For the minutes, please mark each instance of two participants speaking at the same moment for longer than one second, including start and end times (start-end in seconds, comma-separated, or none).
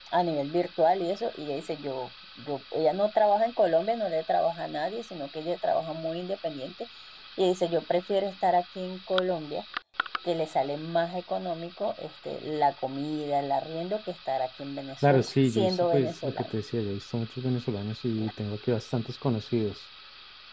15.0-16.5